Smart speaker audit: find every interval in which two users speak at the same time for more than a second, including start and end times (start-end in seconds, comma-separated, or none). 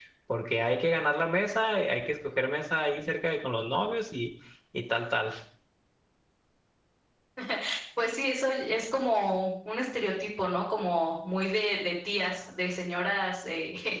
none